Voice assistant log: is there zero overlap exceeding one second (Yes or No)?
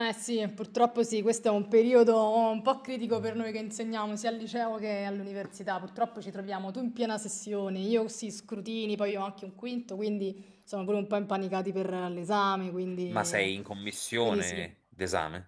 Yes